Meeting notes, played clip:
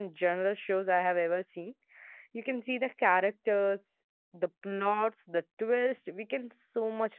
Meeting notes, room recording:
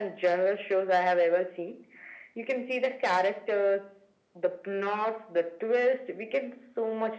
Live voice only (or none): none